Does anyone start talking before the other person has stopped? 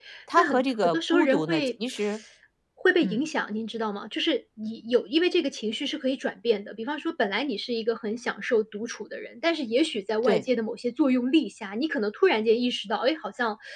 Yes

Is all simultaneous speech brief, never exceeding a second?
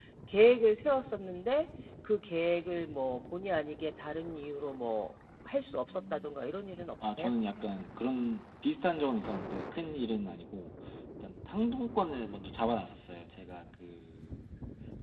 Yes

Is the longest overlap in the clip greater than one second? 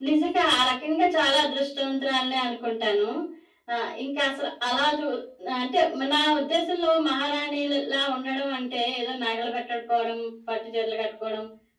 No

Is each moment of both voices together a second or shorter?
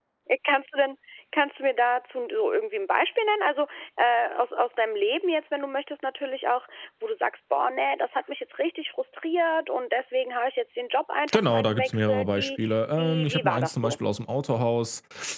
No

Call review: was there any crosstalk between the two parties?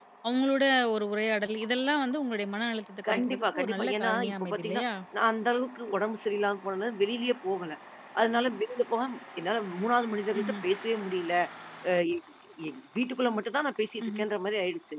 Yes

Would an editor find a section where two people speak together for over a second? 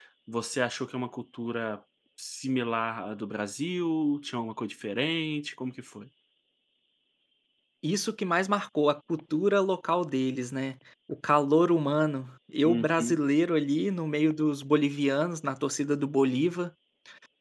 No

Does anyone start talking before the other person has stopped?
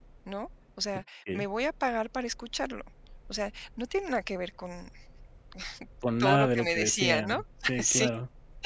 Yes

